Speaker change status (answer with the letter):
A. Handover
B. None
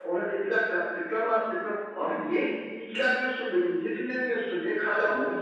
B